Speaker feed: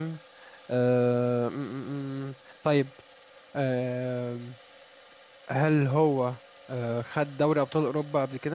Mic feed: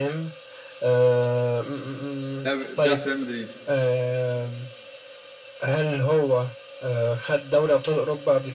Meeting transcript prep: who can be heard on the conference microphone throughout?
both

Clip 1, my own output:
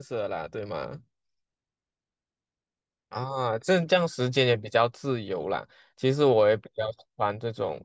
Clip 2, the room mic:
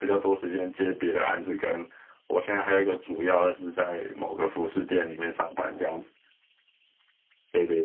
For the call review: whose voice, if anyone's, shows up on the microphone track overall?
user only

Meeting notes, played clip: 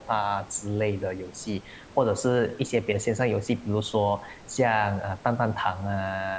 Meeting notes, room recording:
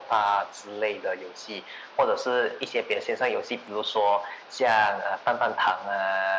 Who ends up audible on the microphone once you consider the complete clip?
echo only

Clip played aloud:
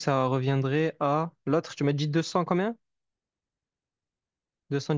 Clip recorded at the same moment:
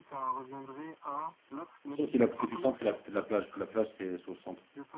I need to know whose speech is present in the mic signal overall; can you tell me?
both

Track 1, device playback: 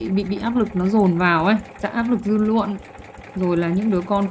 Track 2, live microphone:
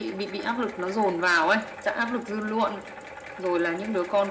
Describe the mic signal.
echo only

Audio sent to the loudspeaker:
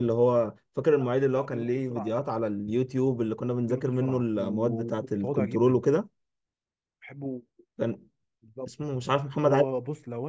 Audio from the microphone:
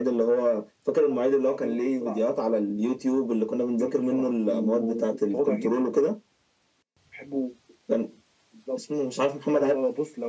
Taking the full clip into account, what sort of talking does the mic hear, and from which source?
echo only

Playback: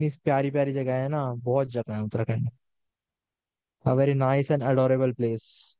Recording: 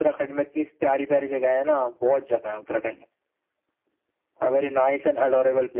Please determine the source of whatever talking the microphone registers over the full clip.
echo only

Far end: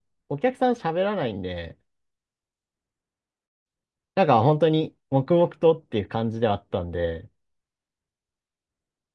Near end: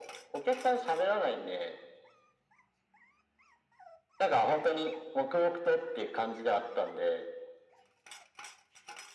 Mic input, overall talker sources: echo only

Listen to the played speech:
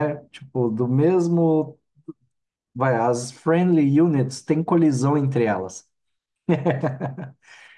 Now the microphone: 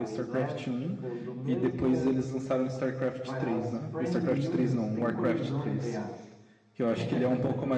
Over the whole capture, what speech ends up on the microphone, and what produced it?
both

